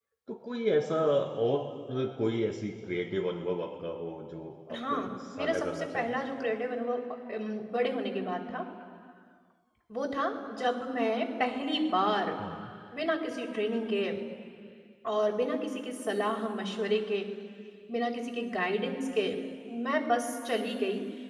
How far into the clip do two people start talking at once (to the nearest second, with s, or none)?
5 s